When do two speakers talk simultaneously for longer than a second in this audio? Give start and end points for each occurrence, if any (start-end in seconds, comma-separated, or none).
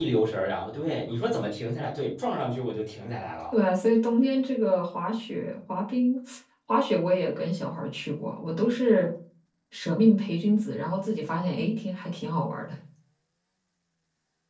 none